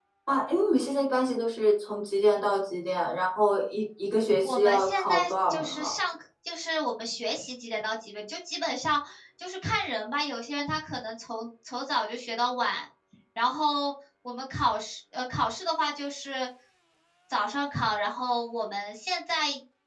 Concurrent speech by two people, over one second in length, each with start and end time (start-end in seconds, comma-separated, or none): 4.4-6.0